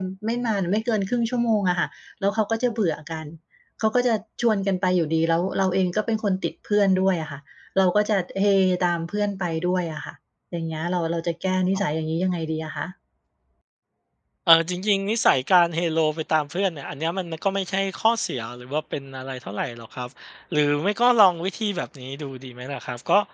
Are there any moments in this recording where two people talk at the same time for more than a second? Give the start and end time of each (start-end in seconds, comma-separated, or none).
none